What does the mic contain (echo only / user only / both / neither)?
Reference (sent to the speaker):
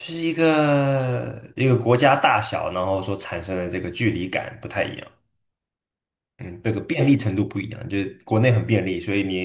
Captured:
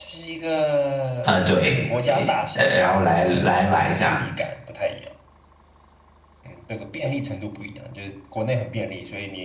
both